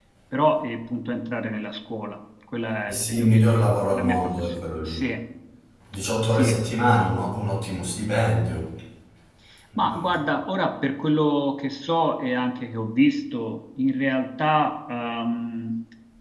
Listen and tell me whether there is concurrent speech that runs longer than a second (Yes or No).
Yes